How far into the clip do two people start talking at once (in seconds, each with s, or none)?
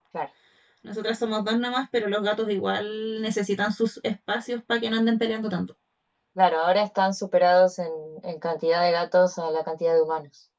none